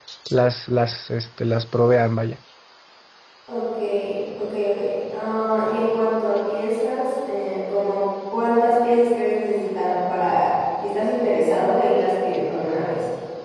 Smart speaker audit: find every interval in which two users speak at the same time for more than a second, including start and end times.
none

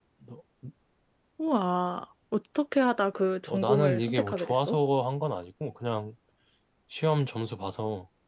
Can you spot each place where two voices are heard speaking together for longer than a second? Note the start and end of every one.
3.5-4.8

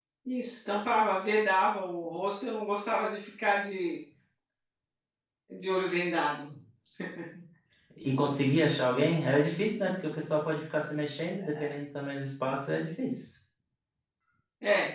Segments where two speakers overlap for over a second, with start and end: none

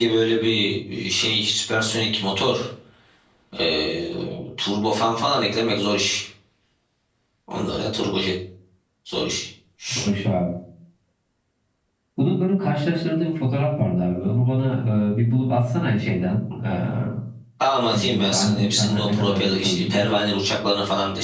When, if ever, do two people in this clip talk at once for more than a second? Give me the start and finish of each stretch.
17.9-20.1

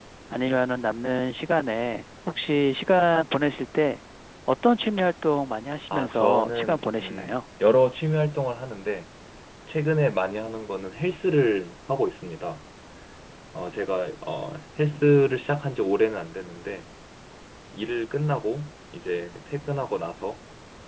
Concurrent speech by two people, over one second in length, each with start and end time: 5.9-7.3

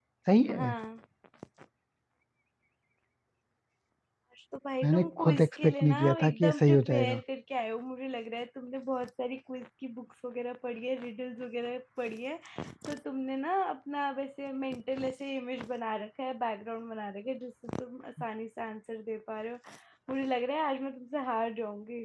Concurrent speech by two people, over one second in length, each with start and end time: 4.8-7.2

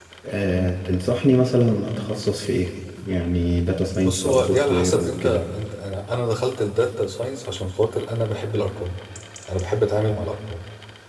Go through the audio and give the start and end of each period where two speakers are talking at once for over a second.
4.0-5.4

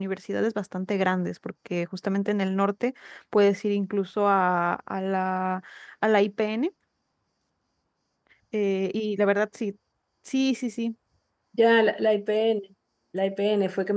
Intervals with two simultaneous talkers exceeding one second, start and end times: none

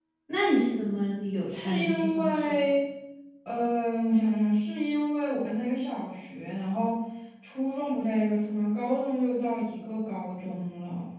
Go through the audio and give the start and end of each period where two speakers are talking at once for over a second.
1.5-2.7

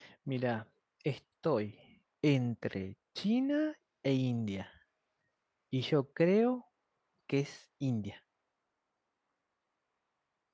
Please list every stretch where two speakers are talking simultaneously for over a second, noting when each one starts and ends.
none

